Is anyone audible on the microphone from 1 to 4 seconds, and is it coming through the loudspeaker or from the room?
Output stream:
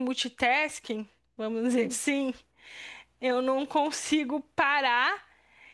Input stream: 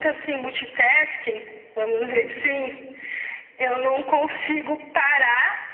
echo only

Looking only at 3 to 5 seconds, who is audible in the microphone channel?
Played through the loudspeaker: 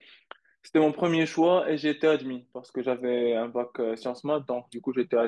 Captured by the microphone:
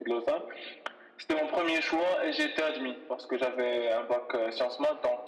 echo only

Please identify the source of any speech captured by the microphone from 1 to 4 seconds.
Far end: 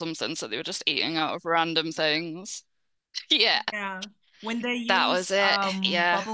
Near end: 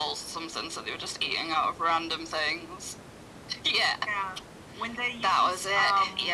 echo only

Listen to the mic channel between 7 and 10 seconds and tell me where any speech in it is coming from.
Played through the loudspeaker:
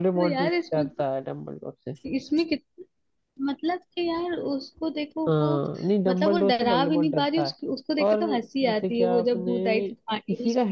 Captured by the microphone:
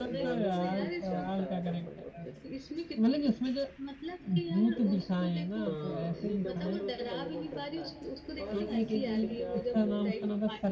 both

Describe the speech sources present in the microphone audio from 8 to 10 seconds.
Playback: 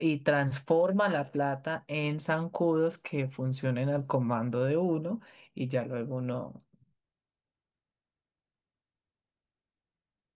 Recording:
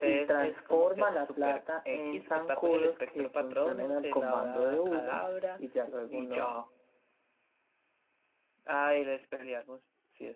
user only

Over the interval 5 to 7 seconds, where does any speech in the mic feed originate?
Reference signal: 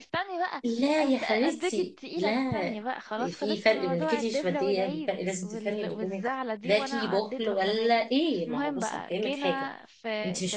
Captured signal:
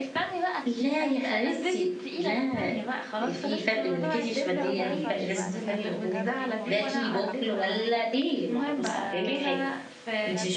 both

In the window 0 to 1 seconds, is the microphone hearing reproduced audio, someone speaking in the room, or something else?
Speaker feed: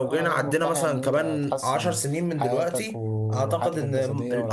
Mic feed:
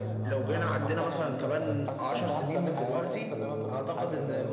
both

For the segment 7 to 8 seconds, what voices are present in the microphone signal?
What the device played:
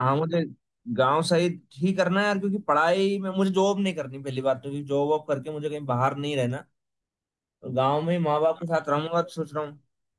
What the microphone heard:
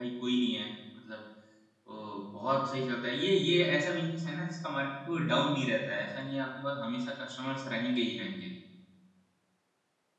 user only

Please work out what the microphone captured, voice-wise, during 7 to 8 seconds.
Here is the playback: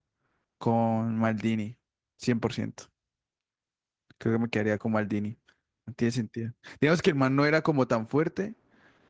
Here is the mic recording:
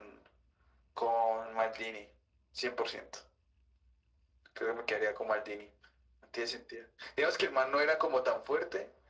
echo only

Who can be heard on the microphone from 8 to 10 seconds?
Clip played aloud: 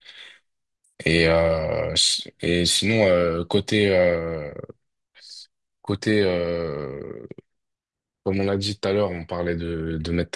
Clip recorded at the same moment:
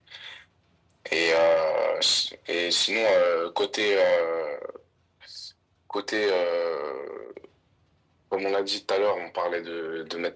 echo only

